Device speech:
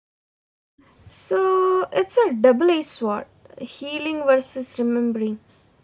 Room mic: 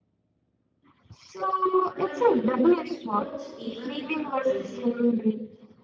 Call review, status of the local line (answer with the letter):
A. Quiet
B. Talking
B